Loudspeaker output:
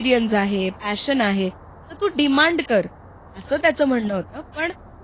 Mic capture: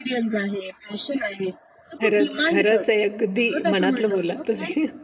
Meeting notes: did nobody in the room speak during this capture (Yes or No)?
No